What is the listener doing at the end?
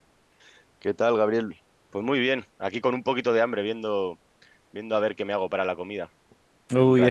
taking over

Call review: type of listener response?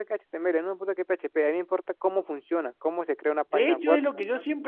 taking over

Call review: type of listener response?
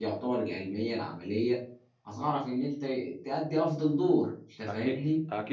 taking over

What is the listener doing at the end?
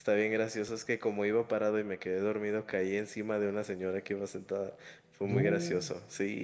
listening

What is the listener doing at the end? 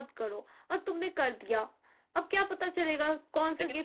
listening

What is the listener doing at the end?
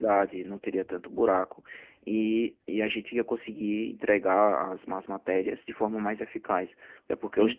listening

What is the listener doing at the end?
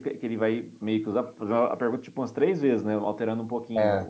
listening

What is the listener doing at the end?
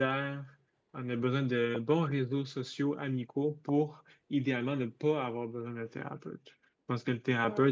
listening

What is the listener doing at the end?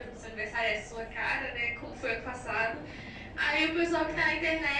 listening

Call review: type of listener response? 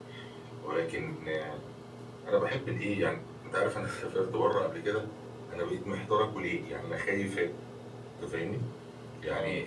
listening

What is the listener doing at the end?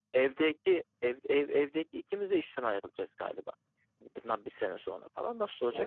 taking over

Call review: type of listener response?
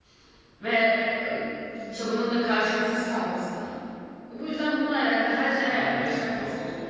taking over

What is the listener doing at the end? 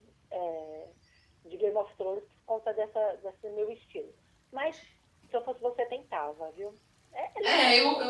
taking over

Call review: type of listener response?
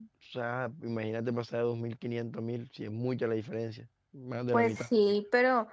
taking over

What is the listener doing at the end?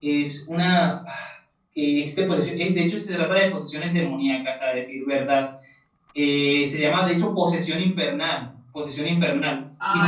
taking over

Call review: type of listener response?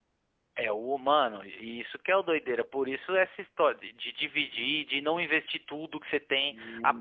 listening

